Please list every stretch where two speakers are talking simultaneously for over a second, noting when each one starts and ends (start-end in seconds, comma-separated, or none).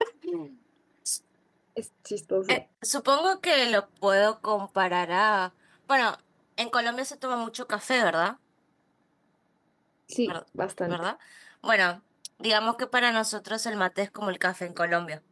none